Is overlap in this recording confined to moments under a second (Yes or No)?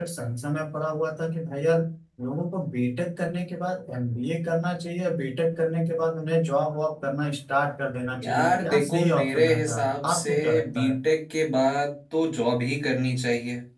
No